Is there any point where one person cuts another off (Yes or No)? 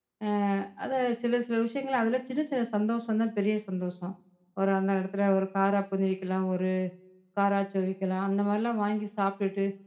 No